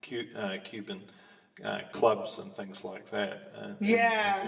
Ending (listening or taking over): taking over